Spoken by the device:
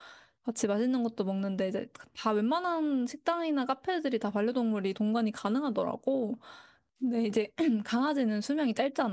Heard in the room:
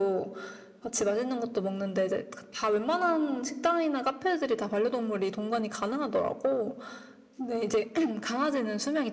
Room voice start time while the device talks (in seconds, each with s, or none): none